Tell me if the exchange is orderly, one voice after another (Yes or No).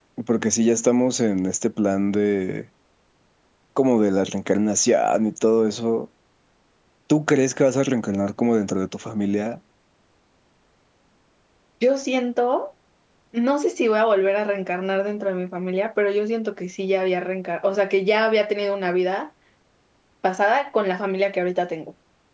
Yes